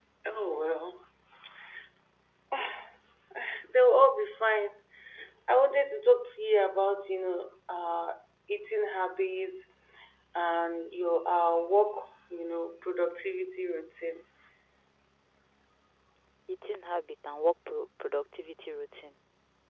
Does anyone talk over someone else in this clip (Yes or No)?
No